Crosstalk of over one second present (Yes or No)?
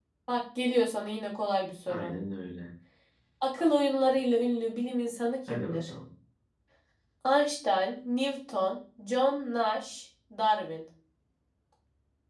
No